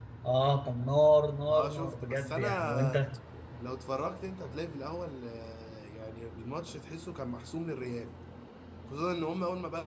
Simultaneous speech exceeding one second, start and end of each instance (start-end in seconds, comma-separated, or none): 1.5-3.0